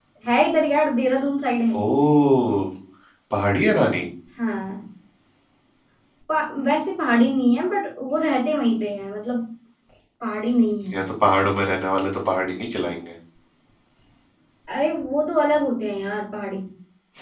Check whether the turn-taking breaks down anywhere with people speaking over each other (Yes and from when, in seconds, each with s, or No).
No